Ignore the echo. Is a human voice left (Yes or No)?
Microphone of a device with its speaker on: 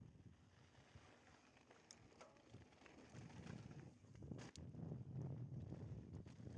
No